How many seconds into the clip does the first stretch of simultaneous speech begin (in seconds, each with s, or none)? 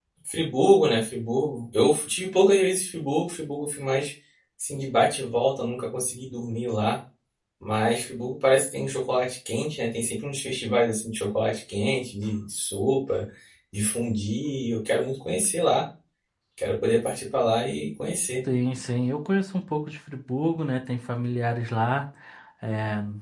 none